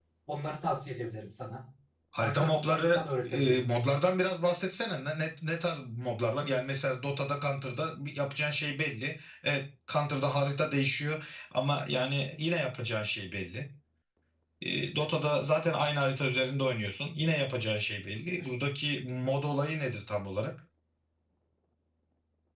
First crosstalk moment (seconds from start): 2.2 s

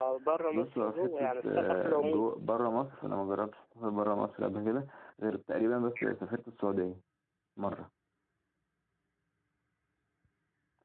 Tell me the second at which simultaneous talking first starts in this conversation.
0.5 s

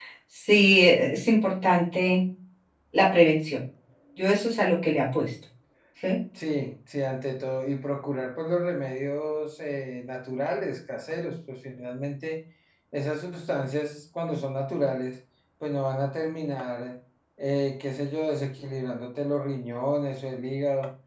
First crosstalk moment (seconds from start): none

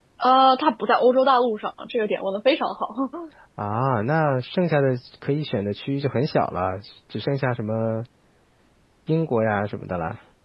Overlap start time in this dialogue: none

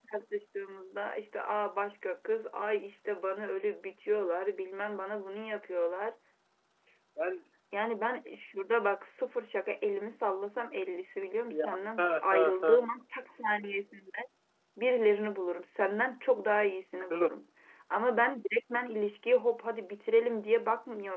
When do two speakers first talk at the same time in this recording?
11.5 s

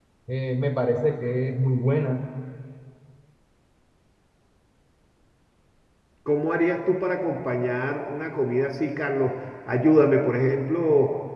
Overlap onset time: none

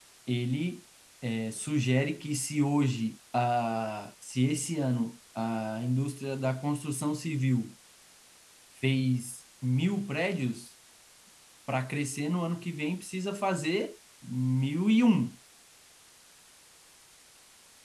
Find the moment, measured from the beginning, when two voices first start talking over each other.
none

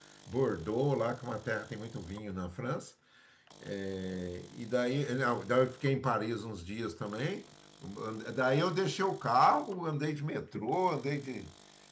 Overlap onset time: none

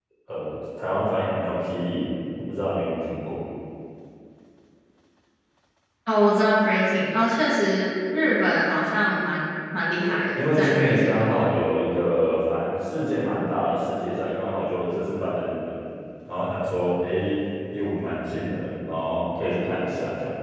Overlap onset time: 10.0 s

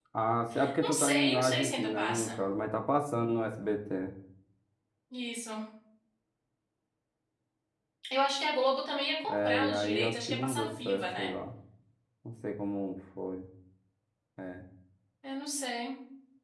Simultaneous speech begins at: 0.8 s

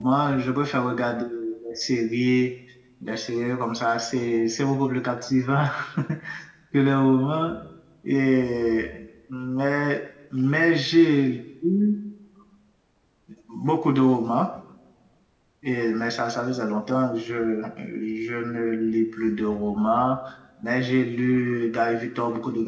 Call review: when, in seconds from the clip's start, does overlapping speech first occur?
none

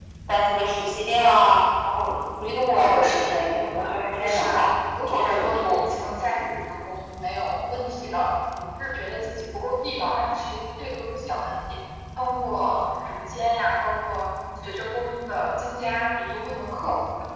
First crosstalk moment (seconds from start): 2.8 s

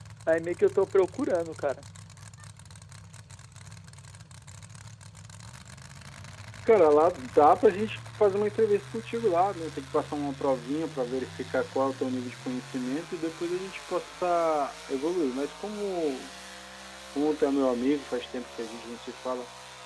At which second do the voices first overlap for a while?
none

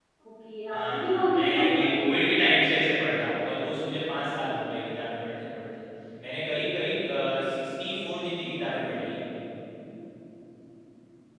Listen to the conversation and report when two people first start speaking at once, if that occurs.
0.7 s

